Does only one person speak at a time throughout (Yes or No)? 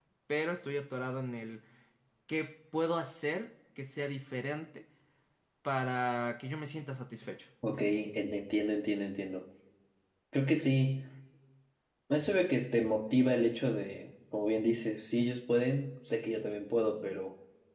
Yes